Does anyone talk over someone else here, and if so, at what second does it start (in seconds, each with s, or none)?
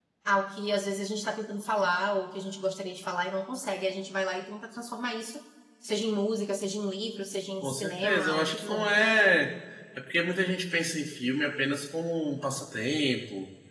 7.6 s